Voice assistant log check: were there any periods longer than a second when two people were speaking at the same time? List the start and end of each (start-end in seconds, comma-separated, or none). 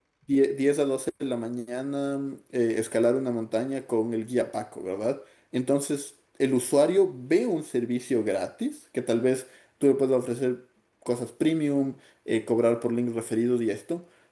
none